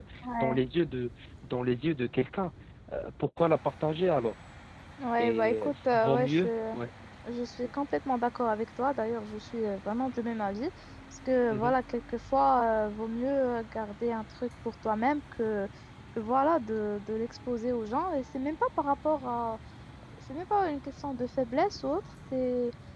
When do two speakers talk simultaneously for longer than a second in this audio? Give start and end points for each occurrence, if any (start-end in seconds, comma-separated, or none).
5.2-6.5